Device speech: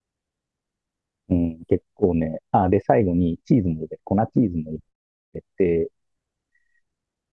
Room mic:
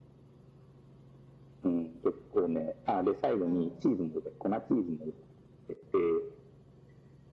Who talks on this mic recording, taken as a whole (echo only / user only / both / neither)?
both